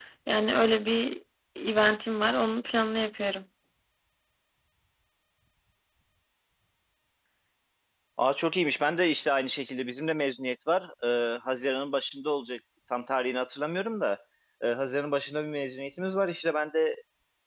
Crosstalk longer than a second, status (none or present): none